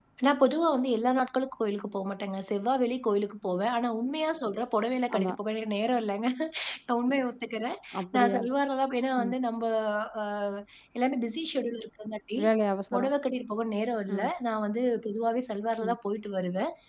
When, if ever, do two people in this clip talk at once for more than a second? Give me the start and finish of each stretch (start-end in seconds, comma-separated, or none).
none